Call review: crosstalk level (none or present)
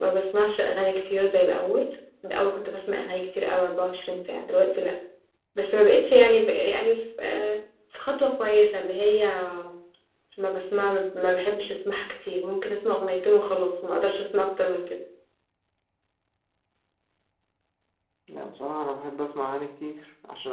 none